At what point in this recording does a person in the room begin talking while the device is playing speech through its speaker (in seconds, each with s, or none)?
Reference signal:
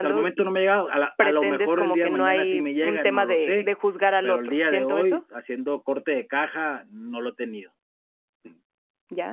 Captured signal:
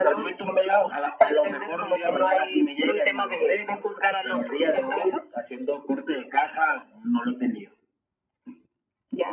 none